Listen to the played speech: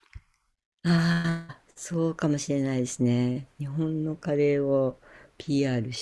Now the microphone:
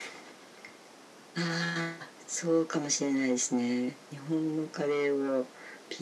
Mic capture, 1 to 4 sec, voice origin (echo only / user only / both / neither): echo only